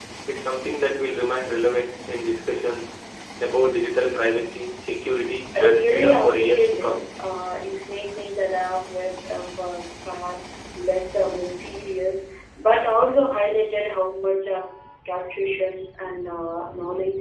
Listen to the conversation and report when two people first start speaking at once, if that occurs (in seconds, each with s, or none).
5.5 s